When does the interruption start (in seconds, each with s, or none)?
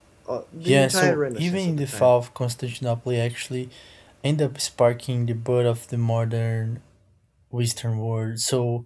0.7 s